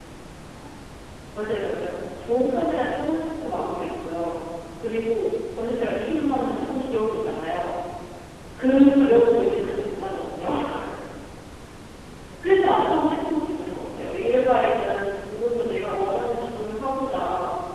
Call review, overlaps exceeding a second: present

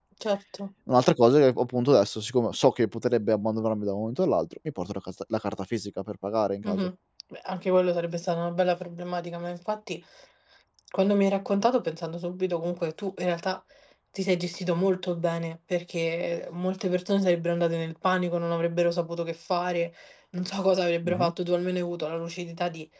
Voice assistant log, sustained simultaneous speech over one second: none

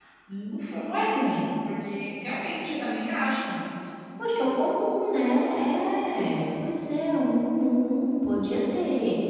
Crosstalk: none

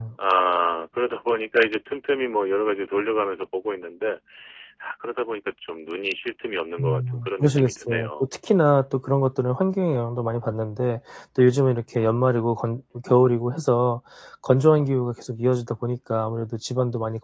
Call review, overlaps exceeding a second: present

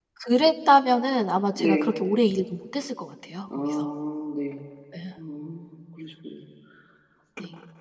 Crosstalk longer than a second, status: none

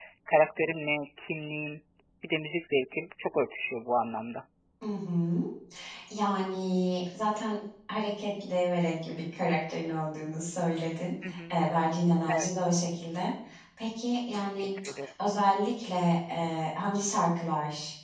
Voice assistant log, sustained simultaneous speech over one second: none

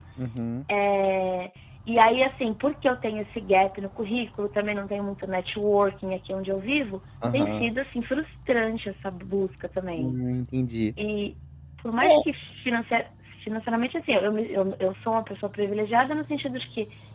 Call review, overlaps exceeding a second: none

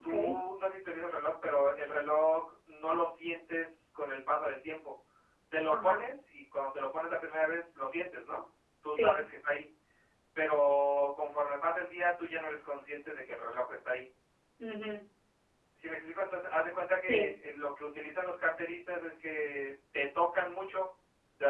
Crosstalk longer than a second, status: none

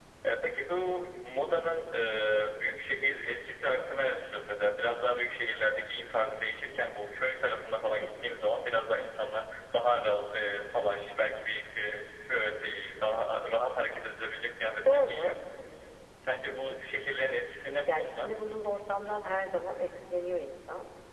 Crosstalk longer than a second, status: none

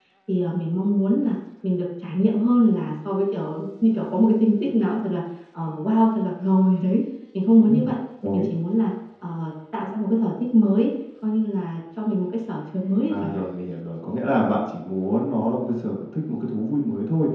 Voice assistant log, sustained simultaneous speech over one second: none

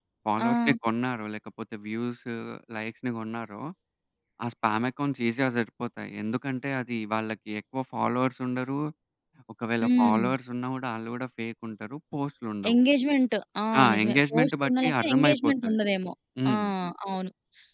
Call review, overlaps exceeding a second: present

